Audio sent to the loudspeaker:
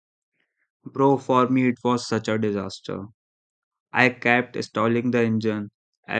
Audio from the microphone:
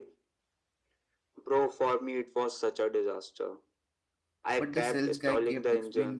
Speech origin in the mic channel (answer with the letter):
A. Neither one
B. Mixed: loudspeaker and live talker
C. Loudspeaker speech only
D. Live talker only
B